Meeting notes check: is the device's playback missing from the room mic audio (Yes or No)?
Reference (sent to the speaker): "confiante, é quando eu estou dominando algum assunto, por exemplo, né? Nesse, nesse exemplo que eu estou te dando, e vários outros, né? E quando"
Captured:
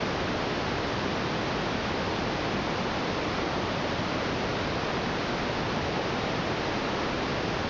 Yes